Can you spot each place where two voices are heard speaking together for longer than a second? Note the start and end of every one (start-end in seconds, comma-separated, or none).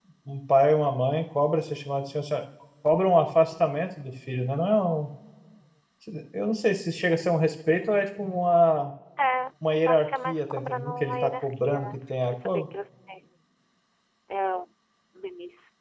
9.8-12.7